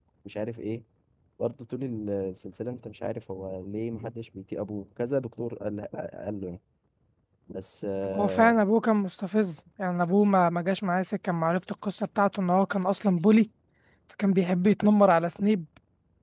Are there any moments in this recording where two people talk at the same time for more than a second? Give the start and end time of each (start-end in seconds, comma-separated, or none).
none